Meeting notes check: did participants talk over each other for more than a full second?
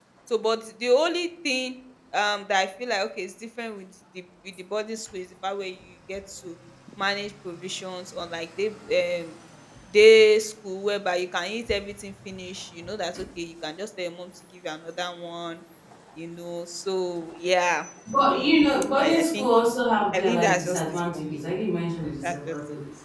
Yes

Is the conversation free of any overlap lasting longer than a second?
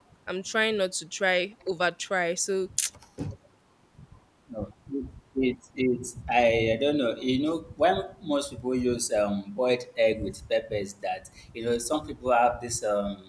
Yes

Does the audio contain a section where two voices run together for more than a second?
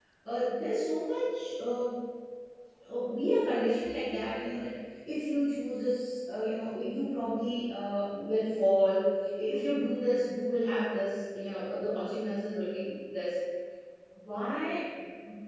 No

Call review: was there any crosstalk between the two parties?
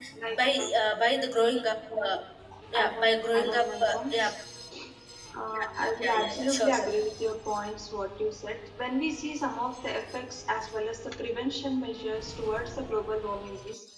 Yes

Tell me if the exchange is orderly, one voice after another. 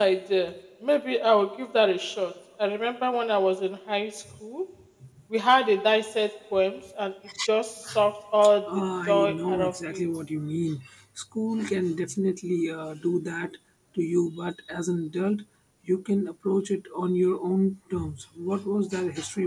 No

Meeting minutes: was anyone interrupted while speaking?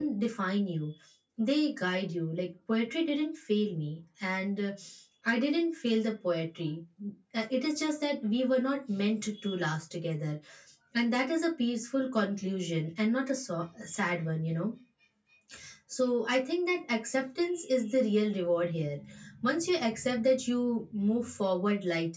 No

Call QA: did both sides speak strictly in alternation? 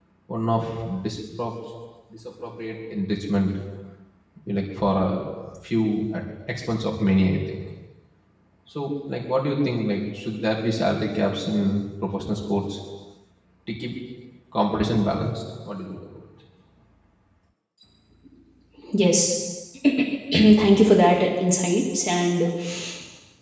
Yes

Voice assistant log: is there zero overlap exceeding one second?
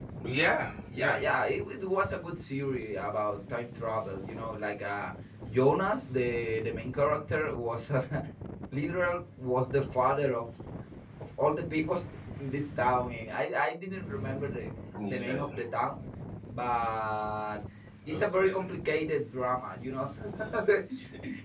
Yes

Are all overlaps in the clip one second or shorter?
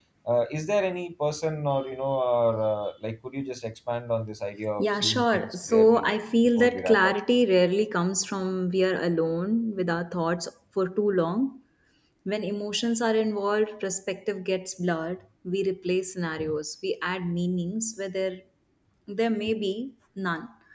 No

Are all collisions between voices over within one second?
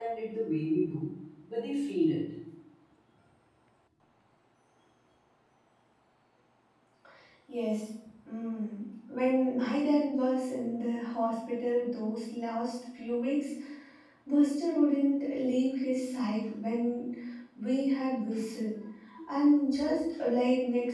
Yes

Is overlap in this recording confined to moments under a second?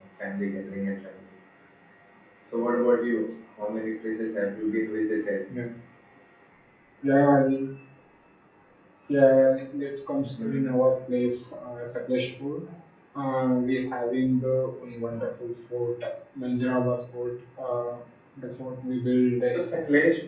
Yes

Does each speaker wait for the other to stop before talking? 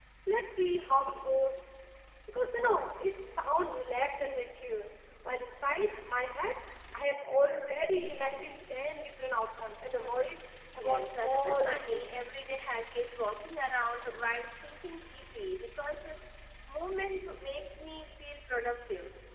No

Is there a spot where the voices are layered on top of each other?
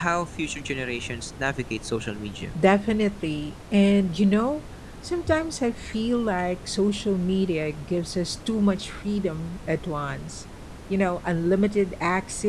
No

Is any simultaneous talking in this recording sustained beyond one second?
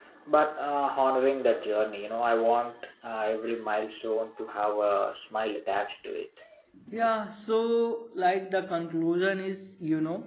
No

